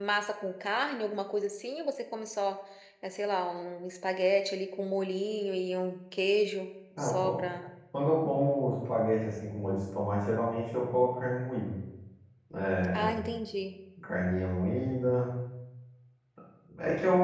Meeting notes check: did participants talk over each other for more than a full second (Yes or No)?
No